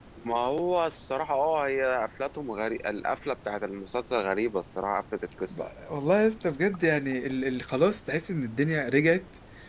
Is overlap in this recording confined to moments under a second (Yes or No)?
Yes